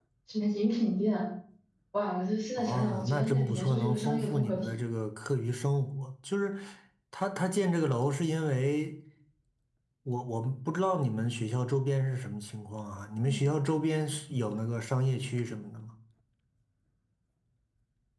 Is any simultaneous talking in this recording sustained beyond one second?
Yes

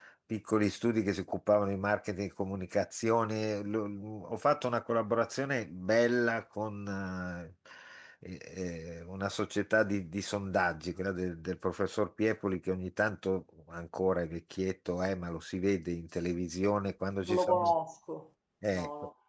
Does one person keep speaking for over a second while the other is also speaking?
No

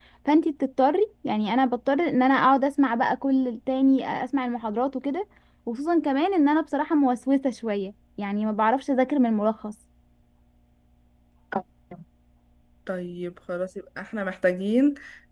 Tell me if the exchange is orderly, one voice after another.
Yes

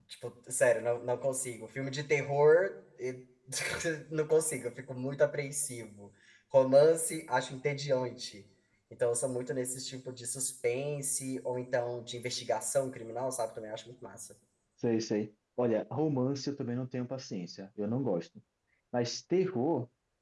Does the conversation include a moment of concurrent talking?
No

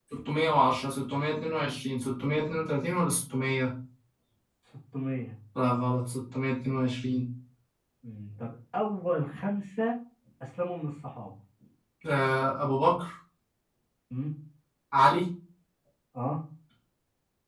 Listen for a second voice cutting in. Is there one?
No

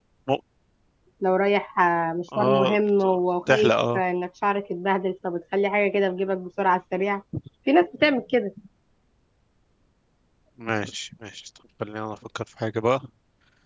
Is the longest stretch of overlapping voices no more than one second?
Yes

